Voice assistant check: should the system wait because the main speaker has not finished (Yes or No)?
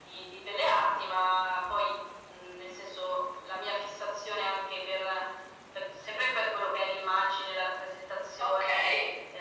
Yes